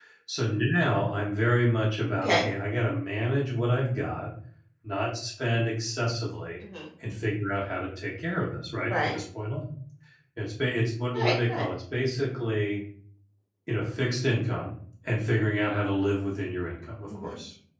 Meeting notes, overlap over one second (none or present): none